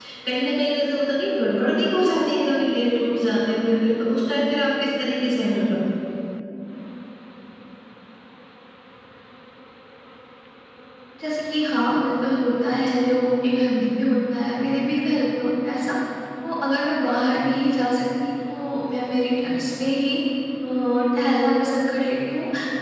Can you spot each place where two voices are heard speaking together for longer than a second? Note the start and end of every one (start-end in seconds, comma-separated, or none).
none